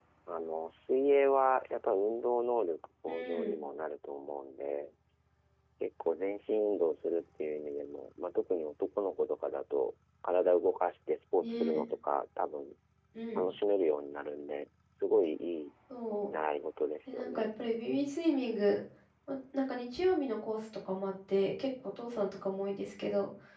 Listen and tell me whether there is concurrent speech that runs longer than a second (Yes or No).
No